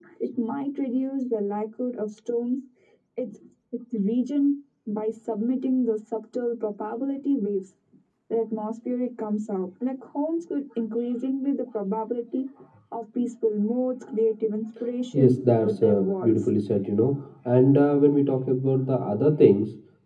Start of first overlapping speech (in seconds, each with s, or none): 15.1 s